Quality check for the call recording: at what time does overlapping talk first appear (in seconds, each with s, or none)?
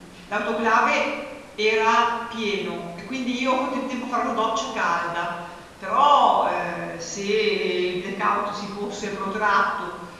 none